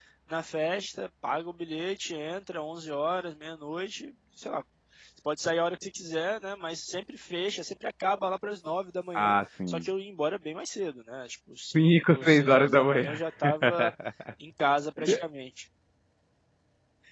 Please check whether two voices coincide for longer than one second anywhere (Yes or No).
Yes